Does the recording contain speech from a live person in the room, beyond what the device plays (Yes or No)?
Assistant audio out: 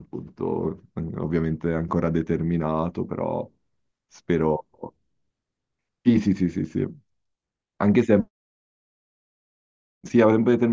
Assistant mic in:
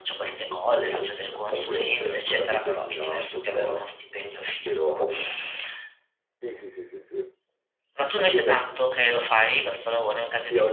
Yes